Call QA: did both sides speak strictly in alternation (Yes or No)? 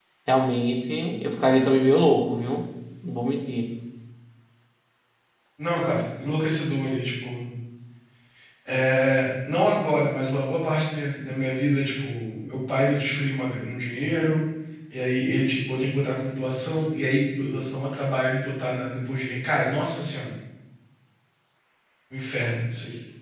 Yes